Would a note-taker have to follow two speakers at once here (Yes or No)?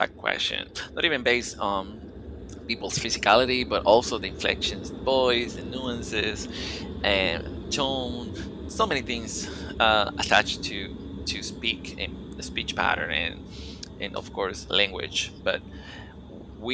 No